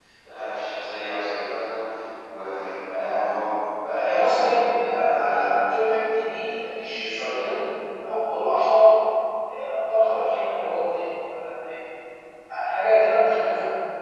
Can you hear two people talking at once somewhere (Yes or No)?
Yes